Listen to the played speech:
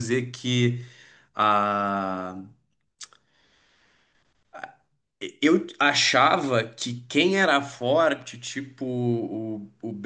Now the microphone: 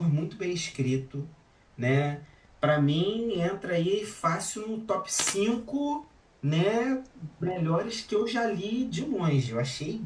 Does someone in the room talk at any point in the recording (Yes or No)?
Yes